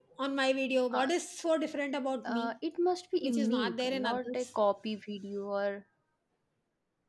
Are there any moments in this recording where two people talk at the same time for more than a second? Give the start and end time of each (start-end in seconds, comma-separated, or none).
3.2-4.5